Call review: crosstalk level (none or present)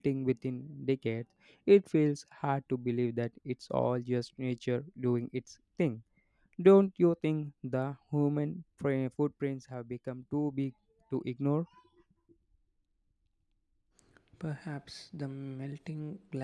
none